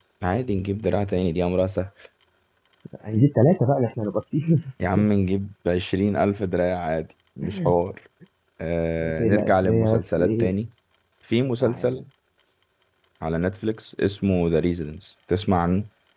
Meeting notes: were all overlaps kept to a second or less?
No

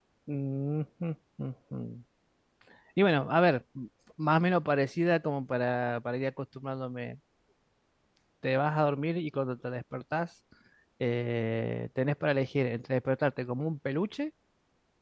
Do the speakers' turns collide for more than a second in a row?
No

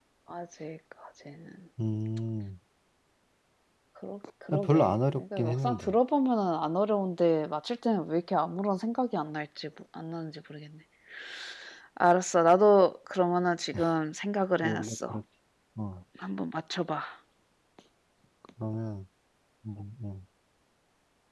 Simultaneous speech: Yes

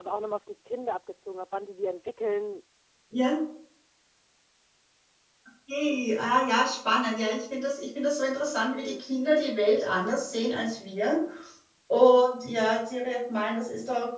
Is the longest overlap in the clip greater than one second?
No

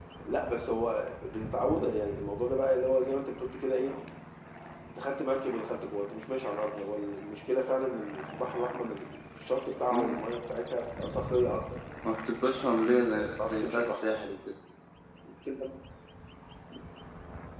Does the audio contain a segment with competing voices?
Yes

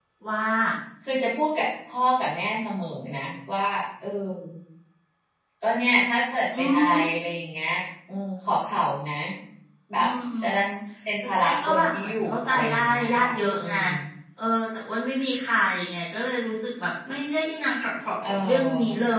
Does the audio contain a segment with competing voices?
Yes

